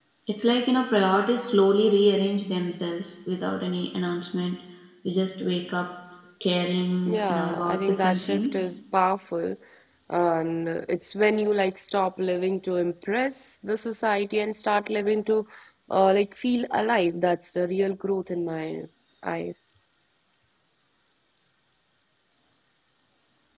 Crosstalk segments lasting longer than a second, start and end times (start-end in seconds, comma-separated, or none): 7.1-8.7